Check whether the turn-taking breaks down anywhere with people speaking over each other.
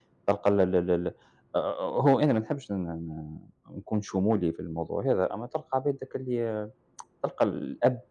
No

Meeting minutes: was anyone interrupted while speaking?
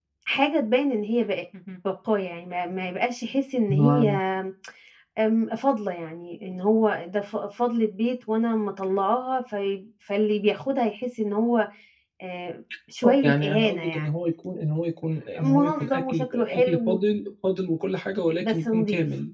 Yes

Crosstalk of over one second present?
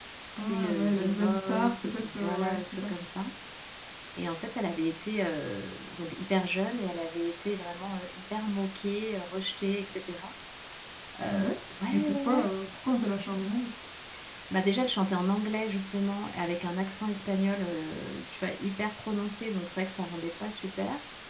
Yes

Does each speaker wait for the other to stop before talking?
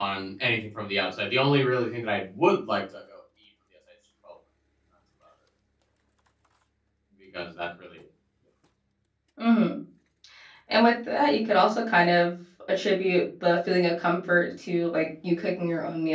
Yes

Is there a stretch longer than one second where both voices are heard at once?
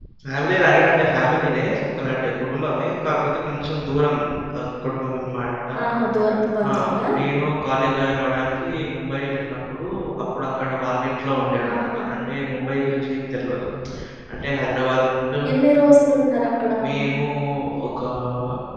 No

